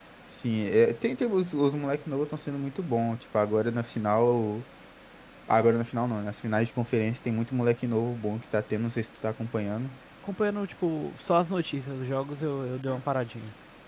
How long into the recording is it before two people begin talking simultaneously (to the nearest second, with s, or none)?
none